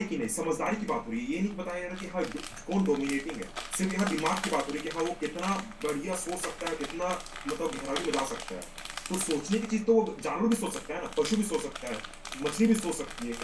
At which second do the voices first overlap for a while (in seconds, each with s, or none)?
none